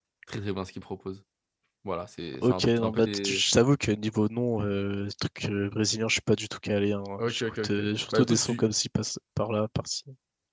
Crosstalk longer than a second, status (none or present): present